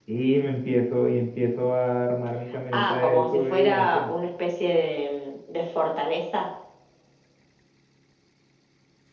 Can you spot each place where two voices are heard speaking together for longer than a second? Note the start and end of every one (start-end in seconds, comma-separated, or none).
2.7-4.1